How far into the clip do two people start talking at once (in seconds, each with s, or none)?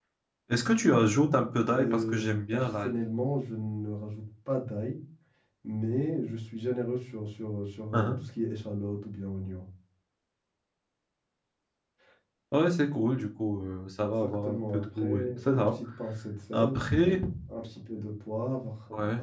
1.7 s